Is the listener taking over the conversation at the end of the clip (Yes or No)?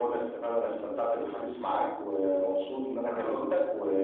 No